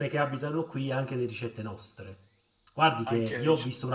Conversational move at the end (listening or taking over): listening